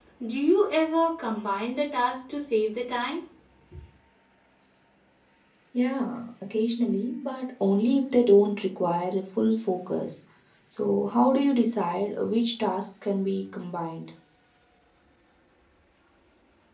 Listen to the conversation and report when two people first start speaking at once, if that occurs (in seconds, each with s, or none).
none